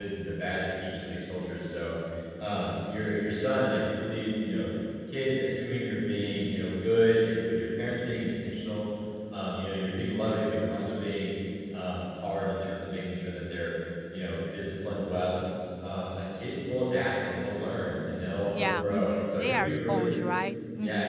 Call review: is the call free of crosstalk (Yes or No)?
No